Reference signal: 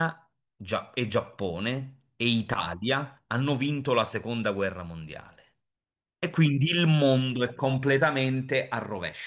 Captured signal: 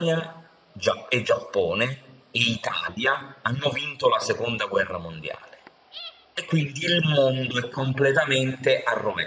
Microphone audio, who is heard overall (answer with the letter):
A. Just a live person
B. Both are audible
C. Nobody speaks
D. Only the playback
D